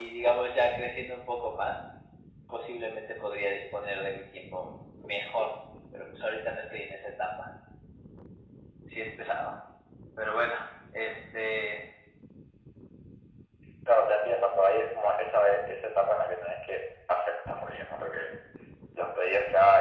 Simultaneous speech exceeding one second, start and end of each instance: none

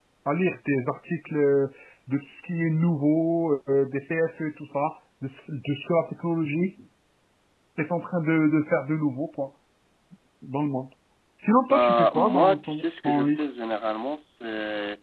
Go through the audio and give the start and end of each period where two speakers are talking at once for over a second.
11.7-13.4

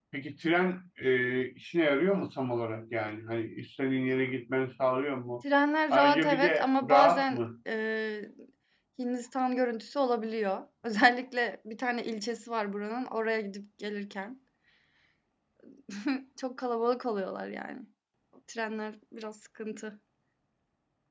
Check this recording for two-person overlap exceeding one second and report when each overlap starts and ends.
5.9-7.4

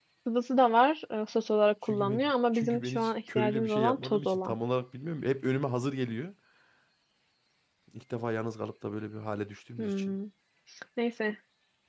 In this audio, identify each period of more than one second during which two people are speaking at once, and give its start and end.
1.9-4.5

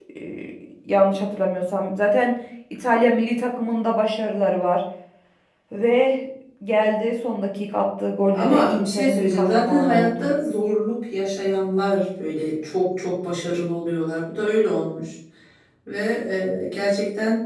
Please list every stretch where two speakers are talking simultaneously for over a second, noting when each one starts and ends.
8.3-10.3

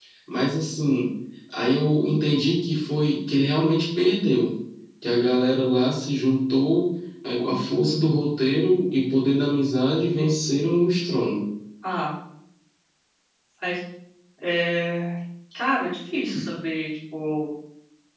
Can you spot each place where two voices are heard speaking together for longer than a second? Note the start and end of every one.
none

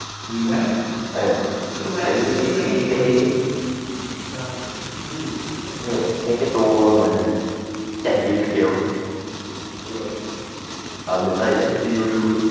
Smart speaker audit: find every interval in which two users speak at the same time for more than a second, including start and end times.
2.0-3.2

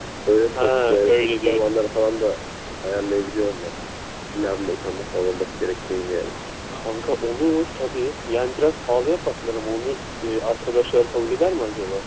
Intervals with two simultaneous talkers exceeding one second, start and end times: 0.6-1.9

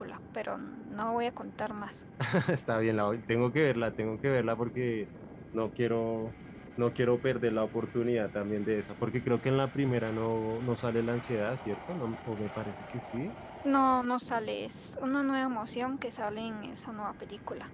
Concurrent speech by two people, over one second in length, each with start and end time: none

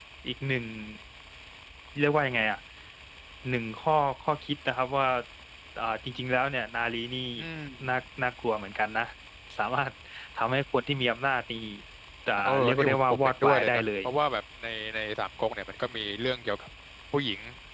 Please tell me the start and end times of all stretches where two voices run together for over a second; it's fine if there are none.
12.4-13.8

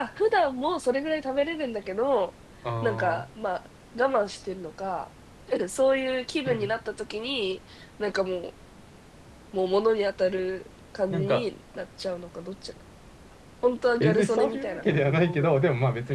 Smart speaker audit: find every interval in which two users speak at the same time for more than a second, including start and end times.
14.0-15.6

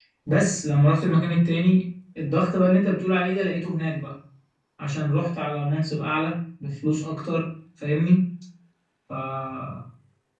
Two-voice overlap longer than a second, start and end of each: none

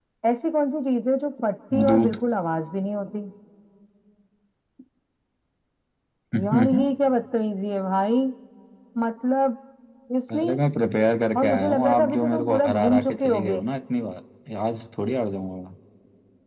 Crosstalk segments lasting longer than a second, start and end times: 11.4-13.6

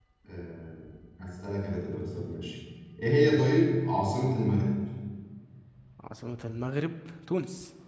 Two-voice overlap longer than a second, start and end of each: none

